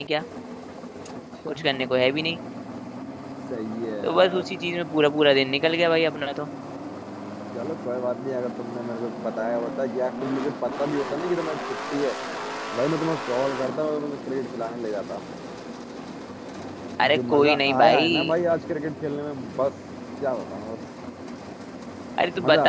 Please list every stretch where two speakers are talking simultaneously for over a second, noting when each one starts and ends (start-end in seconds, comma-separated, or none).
17.1-18.4